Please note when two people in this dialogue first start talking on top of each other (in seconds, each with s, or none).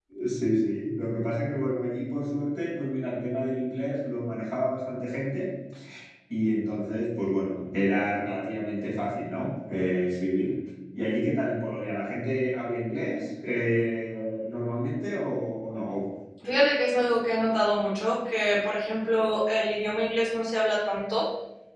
none